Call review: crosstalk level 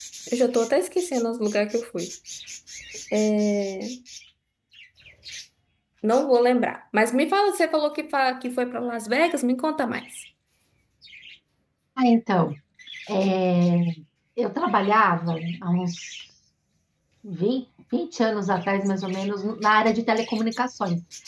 none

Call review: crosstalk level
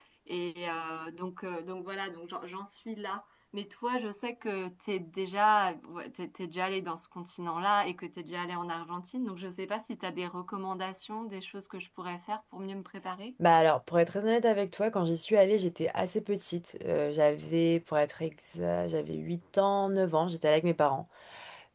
none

